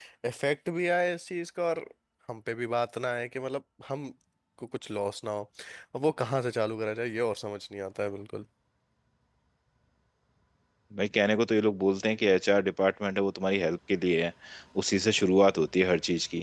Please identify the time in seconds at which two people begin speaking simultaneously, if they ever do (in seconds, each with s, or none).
none